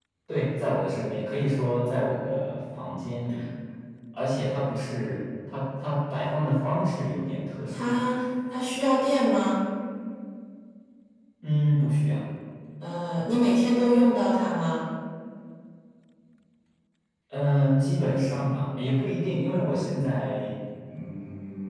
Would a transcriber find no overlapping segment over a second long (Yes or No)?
Yes